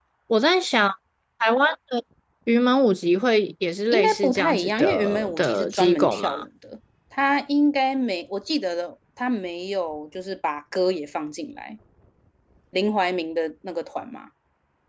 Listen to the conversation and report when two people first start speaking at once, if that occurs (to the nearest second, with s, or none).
4 s